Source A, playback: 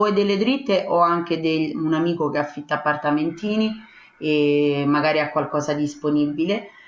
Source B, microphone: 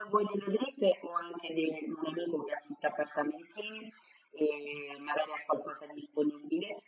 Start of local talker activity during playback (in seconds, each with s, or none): none